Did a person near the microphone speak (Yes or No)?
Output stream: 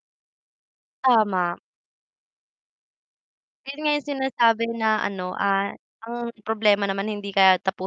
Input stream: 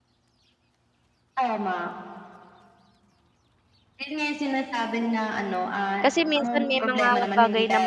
Yes